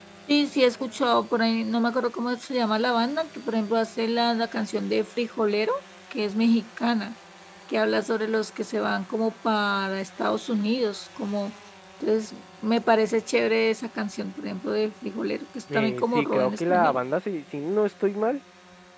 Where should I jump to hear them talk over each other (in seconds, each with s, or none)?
15.7 s